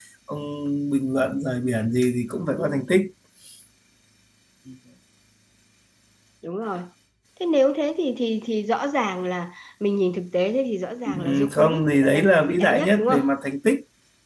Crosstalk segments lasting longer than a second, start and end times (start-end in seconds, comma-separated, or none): 11.1-13.2